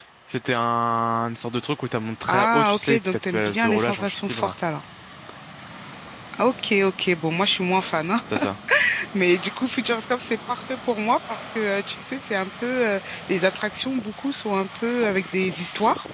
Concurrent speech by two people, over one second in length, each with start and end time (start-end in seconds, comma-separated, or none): 2.3-4.5